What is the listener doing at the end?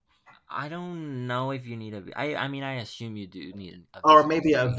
taking over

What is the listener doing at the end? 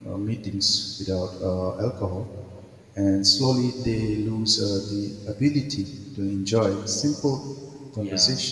listening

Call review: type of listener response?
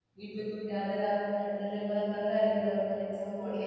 listening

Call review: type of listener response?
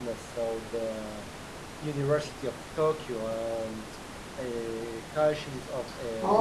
taking over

